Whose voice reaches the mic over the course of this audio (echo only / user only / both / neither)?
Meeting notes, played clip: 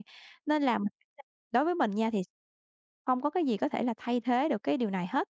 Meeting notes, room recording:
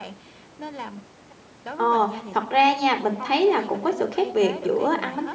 both